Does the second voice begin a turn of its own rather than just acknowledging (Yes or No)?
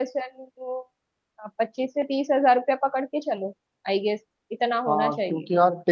Yes